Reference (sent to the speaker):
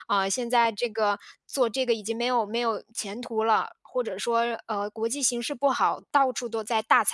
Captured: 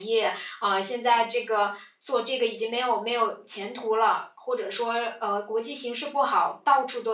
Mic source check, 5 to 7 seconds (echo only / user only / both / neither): echo only